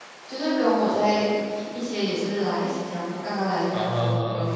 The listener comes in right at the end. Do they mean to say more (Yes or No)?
No